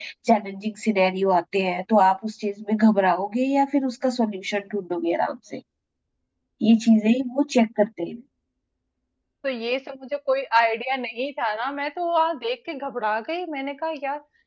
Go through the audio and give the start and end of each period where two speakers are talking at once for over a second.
none

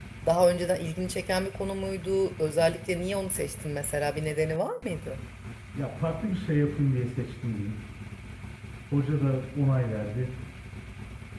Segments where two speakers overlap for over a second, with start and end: none

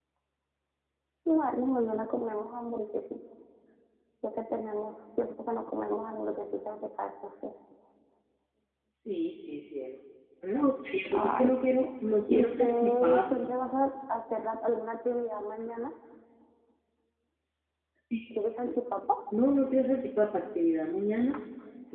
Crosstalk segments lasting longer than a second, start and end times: 12.3-13.6

